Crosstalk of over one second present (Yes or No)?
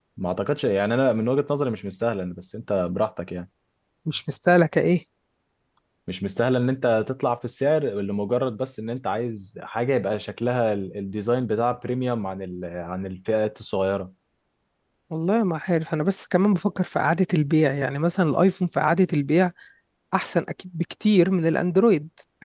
No